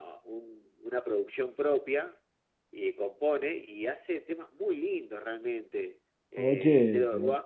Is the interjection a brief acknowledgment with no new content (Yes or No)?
Yes